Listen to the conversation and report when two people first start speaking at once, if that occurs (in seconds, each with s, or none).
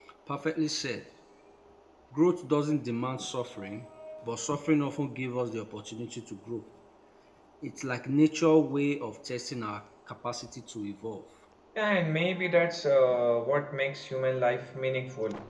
none